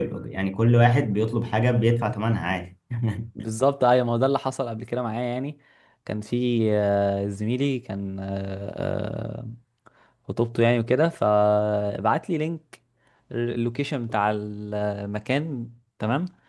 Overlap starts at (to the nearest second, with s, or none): none